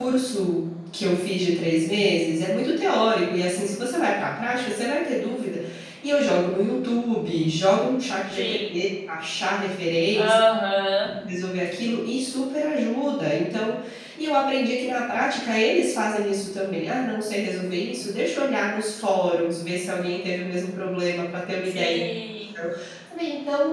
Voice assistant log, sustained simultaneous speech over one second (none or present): none